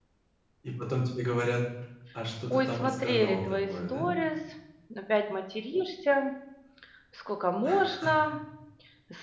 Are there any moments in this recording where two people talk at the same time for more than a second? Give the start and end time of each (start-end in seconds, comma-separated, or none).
2.5-4.1